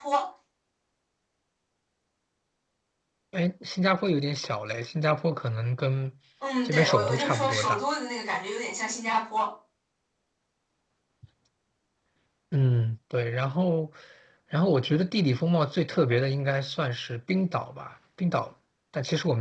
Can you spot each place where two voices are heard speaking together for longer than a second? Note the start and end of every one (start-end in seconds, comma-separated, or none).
6.6-7.8